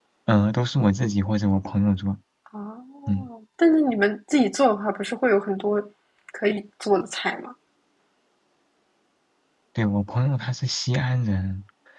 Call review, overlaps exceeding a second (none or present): none